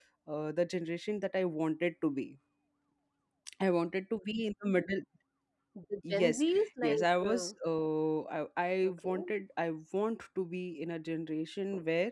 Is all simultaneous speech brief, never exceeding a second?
No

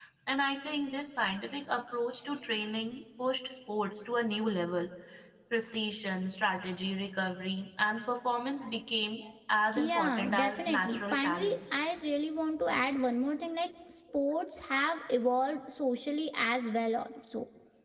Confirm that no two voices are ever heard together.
No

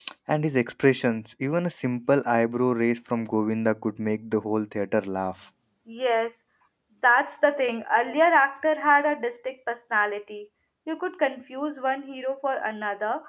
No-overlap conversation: Yes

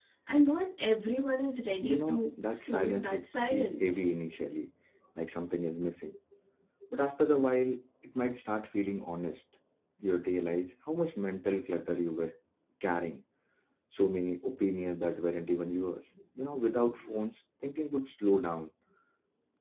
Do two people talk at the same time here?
Yes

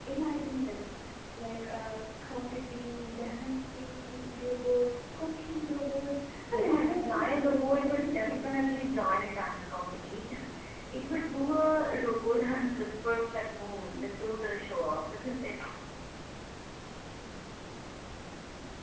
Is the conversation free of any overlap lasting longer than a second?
No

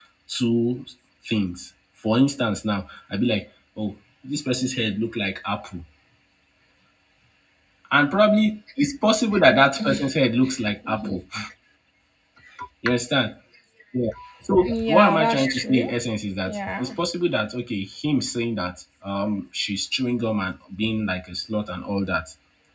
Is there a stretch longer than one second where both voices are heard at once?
Yes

